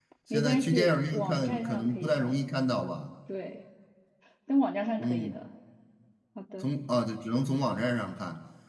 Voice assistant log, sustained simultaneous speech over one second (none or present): present